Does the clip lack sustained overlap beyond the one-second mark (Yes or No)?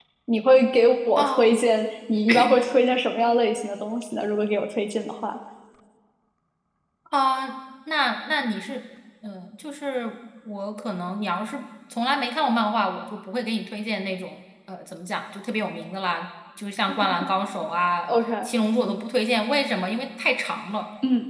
Yes